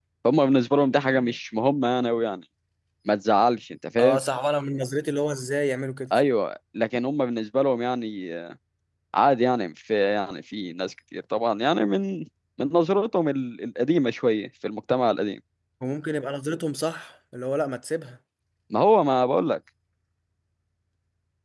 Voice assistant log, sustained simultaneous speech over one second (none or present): none